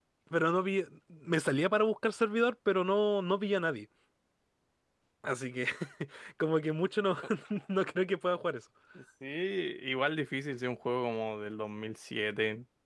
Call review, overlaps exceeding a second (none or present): none